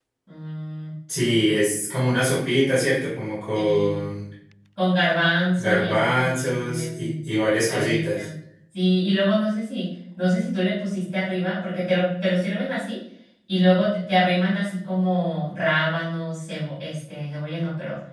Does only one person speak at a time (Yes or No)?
No